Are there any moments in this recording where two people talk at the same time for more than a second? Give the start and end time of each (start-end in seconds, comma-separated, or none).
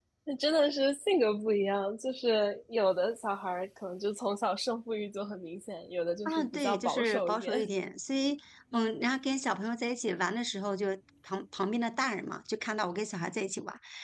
6.2-7.5